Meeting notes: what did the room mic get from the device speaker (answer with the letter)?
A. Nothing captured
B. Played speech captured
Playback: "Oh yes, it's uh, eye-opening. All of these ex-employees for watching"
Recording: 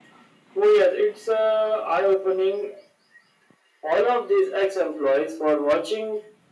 B